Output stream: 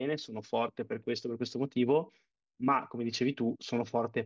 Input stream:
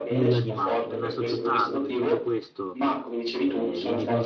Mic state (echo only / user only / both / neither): both